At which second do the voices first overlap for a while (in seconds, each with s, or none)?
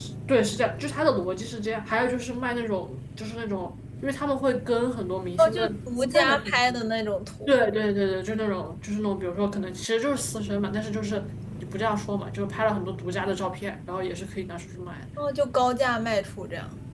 5.4 s